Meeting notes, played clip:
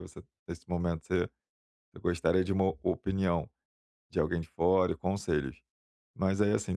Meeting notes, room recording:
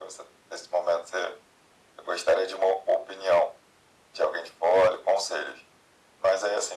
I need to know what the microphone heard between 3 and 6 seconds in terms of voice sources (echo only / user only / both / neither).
echo only